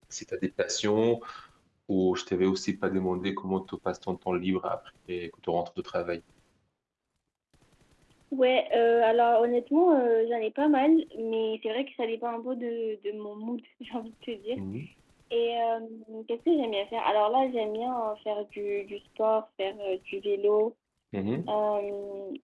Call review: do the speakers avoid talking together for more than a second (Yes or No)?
Yes